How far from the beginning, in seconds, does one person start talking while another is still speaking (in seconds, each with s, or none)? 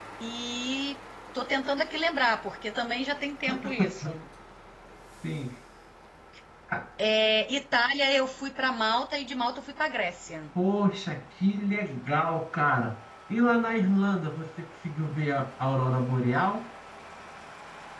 none